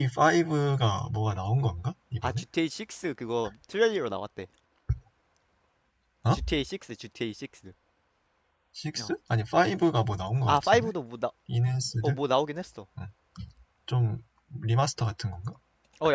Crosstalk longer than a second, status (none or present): none